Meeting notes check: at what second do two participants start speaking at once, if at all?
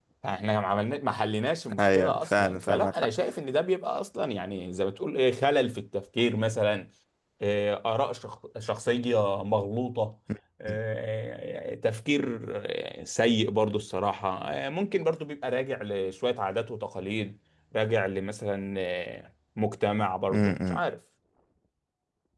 1.8 s

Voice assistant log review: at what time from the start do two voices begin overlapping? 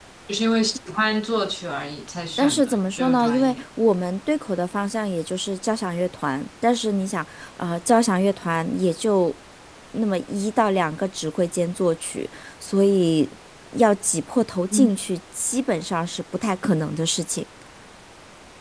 2.4 s

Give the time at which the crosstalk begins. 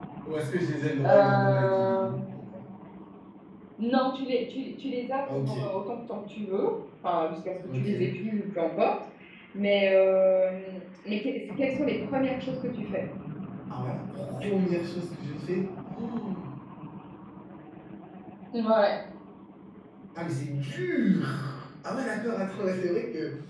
1.1 s

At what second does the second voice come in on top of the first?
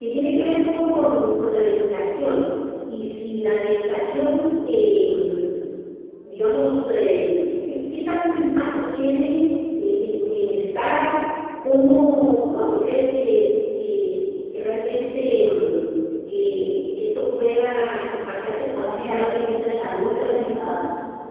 18.7 s

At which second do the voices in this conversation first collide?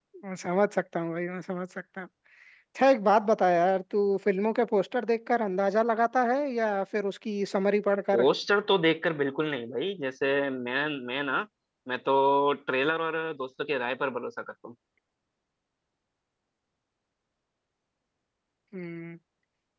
none

